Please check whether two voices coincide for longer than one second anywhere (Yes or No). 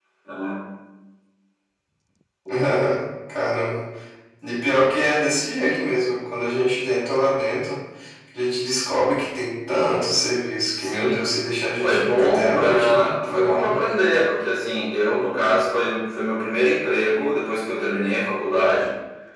Yes